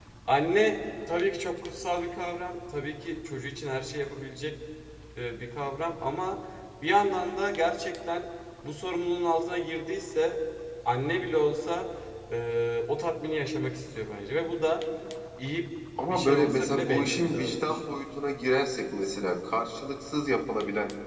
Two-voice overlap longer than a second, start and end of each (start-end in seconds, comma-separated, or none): 16.1-17.8